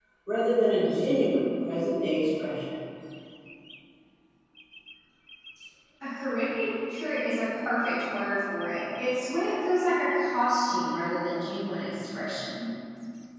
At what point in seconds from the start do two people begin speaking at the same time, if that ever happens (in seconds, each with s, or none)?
none